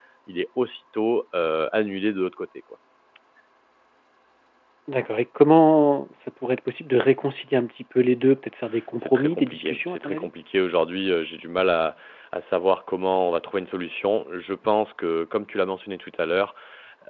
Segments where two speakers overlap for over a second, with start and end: 9.0-10.3

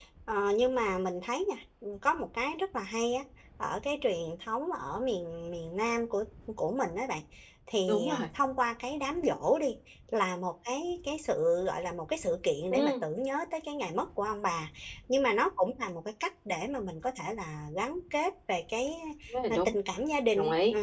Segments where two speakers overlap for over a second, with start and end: none

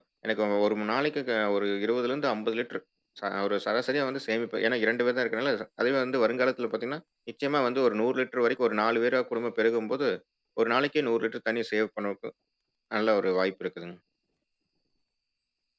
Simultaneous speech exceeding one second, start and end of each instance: none

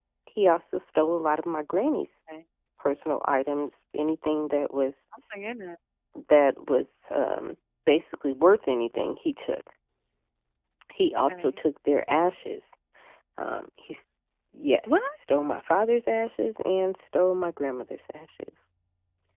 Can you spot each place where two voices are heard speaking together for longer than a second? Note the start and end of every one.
none

